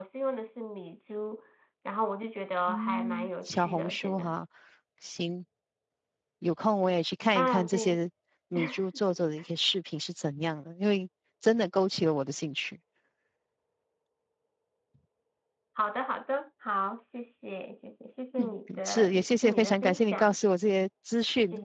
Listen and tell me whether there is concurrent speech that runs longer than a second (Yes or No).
Yes